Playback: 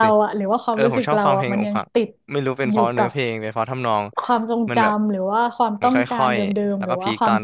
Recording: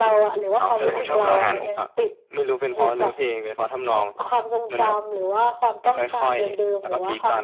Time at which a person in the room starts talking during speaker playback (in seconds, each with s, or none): 0.6 s